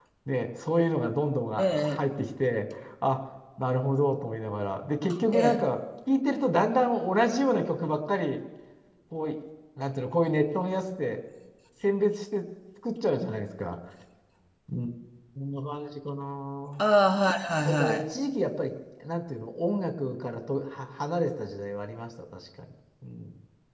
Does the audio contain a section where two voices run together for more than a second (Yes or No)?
No